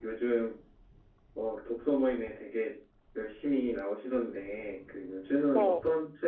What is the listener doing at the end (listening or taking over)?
listening